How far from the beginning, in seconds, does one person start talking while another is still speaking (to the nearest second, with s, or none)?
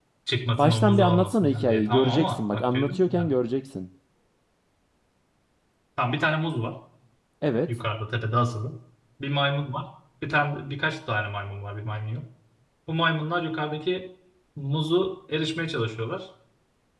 1 s